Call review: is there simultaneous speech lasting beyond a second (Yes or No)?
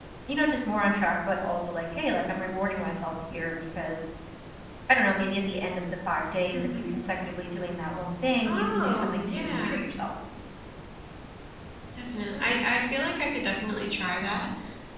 Yes